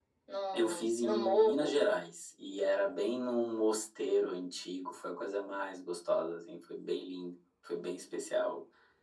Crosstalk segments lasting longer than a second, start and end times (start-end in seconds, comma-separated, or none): 0.5-1.8